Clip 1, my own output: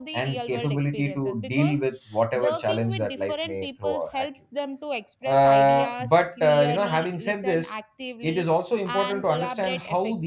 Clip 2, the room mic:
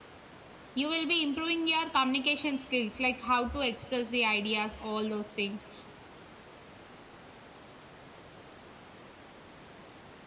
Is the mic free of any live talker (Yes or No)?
No